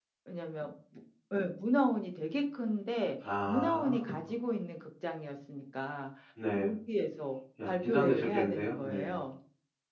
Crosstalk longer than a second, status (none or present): present